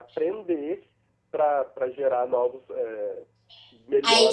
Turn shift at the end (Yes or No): Yes